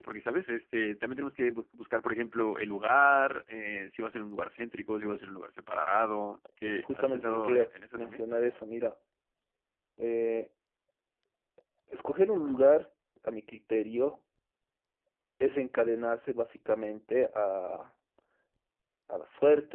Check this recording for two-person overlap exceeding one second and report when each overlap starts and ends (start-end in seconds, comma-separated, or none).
6.7-8.2